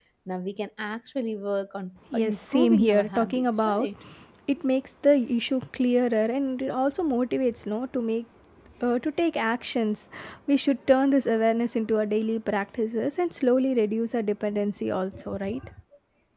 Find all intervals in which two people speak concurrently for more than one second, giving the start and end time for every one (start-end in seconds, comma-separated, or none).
2.1-3.9